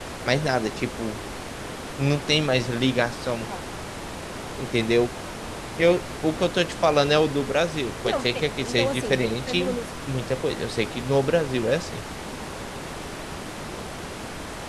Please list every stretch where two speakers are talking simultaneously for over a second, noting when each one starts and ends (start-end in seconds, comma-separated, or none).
8.0-9.8